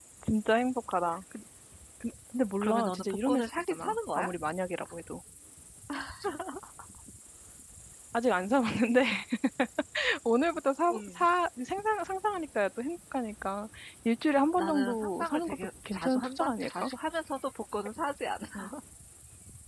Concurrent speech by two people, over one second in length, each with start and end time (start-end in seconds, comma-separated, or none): 2.6-4.2, 14.6-16.9